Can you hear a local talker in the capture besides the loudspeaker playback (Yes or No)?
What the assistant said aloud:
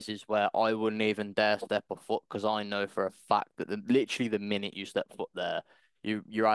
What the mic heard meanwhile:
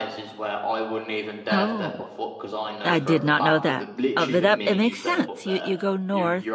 Yes